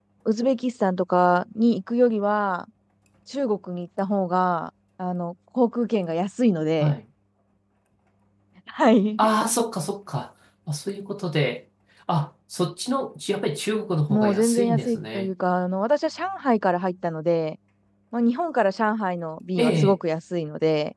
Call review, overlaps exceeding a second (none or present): present